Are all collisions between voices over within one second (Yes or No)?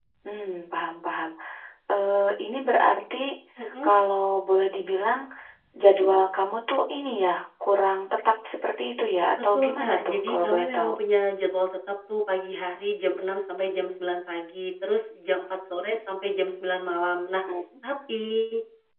No